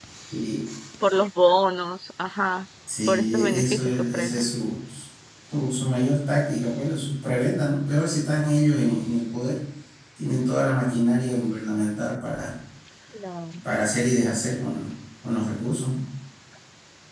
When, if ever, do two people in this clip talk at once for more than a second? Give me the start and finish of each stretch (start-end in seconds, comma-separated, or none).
3.1-4.5